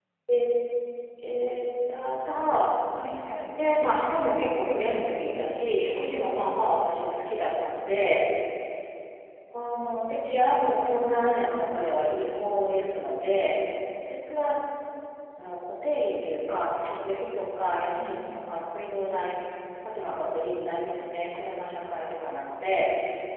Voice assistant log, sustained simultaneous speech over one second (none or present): none